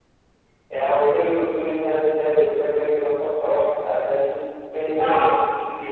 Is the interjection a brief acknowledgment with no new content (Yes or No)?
Yes